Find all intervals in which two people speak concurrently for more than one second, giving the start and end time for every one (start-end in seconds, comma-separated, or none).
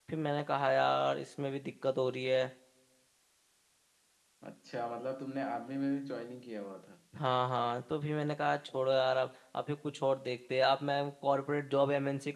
none